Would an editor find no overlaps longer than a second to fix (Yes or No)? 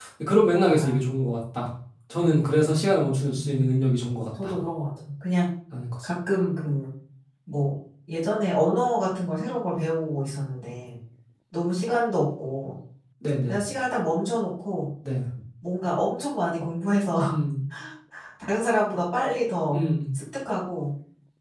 Yes